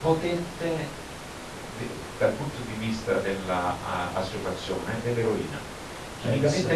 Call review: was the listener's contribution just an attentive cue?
Yes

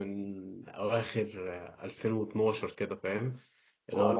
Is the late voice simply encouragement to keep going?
Yes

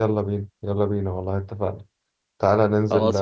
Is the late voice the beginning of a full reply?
No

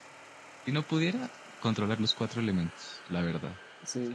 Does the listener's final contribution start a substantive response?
Yes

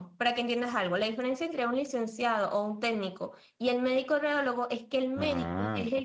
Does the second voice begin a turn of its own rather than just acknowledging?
No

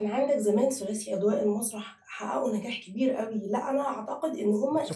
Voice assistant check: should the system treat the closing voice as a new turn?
Yes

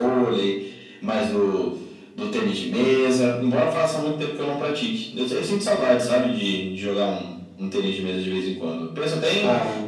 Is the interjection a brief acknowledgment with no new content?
Yes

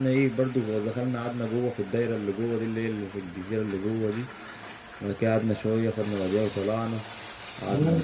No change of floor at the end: No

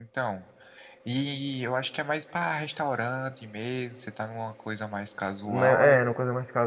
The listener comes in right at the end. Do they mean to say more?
Yes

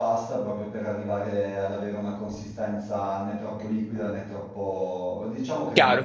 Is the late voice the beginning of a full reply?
Yes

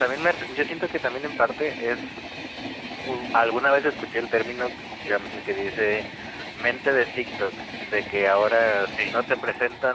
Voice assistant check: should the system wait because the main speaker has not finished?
Yes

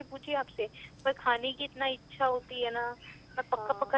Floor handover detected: Yes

